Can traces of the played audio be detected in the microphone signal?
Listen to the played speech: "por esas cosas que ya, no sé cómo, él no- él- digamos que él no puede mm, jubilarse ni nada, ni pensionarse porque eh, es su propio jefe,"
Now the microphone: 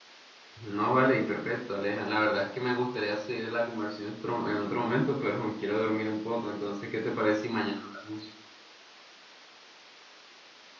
No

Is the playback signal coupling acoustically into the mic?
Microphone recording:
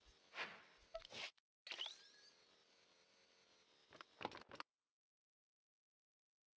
No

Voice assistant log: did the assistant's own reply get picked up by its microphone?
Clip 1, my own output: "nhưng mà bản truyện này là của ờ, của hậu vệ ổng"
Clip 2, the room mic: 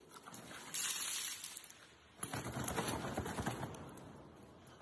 No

